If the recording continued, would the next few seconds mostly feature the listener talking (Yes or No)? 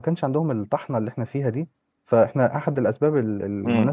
Yes